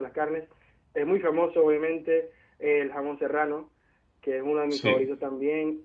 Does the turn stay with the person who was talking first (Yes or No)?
Yes